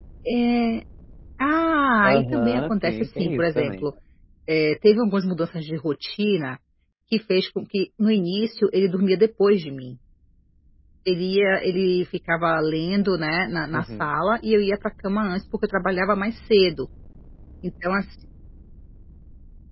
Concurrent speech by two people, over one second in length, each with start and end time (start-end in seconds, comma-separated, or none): 2.0-3.8